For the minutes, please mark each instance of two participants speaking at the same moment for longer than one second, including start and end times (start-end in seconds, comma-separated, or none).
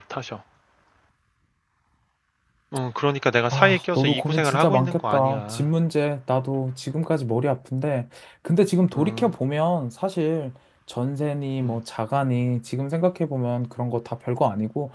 3.5-5.7